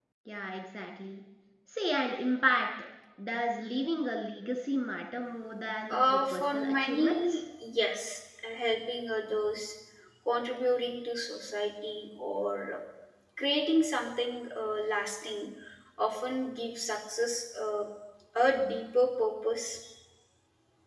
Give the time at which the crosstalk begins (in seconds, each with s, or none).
5.9 s